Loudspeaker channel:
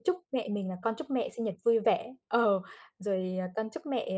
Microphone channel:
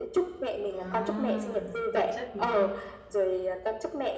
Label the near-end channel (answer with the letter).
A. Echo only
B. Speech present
B